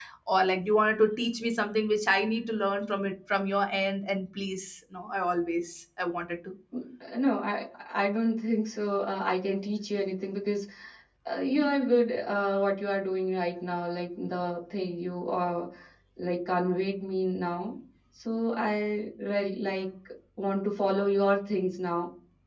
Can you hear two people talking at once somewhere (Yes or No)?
No